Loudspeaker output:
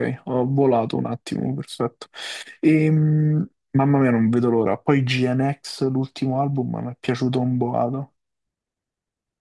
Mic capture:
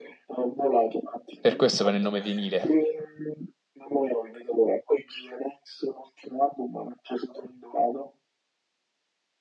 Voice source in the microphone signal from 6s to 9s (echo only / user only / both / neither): echo only